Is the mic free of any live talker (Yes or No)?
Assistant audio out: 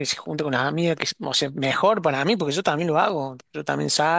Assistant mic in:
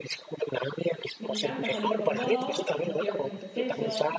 No